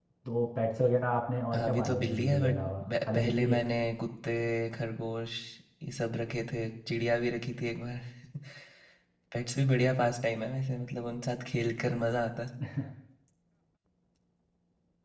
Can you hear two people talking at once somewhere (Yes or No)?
Yes